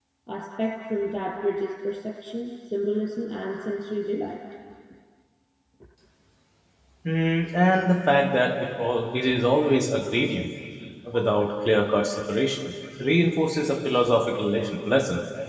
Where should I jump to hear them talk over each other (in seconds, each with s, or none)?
none